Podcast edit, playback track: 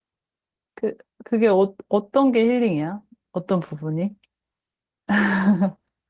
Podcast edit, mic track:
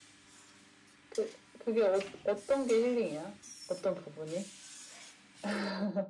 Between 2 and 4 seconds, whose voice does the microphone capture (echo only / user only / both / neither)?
echo only